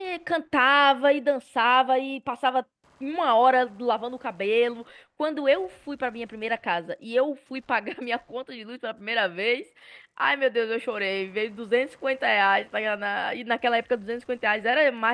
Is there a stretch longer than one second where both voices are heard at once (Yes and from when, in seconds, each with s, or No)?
No